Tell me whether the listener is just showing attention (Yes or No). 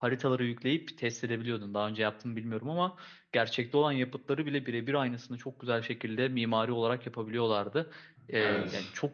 Yes